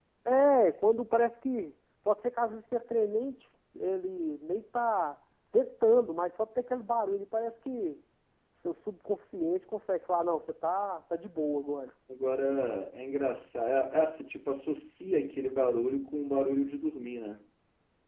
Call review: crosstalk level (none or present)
none